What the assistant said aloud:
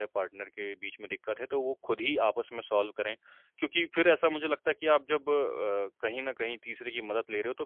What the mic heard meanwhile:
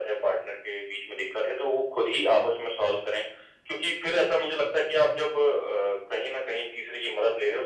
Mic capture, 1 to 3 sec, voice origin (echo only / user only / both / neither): echo only